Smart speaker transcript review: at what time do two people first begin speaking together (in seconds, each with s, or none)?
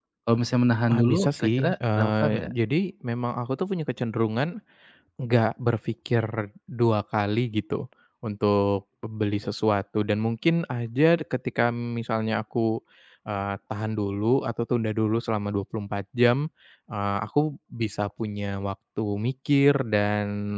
0.9 s